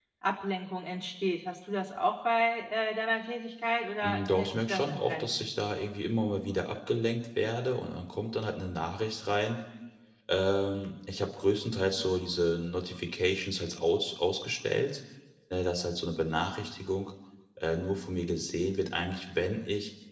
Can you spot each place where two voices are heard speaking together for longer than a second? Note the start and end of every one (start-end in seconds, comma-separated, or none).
4.0-5.5